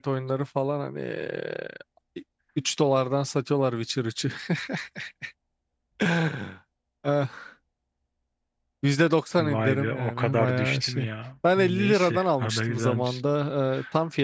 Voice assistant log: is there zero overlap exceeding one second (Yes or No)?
No